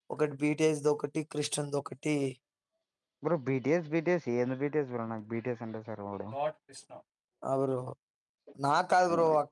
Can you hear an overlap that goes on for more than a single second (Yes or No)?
No